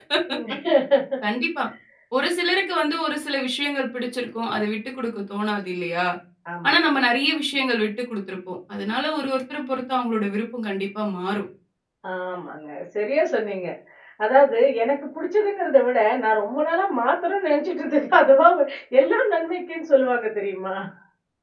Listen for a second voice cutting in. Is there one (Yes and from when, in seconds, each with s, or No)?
No